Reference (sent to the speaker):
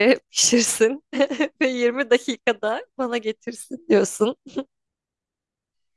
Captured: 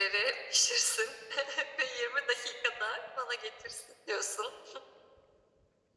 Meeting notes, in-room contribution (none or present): none